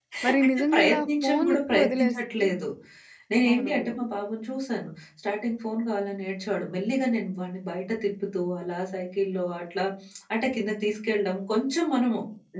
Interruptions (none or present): present